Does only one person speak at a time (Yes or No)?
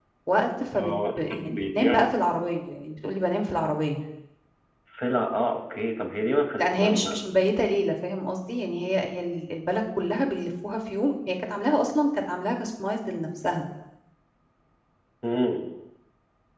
No